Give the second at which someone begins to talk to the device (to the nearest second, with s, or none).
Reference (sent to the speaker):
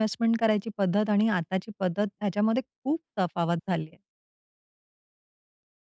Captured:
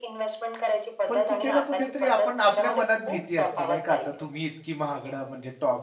1 s